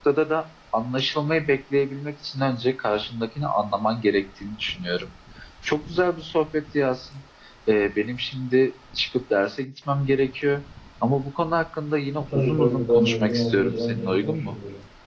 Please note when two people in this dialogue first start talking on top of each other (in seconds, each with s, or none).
12.3 s